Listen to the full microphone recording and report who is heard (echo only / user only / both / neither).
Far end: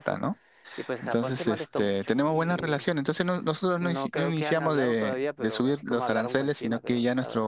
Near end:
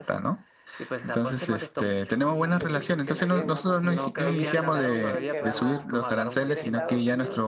both